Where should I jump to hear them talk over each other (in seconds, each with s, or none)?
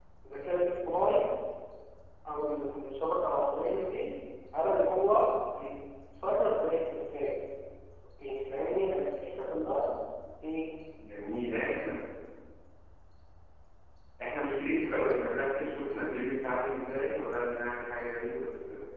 none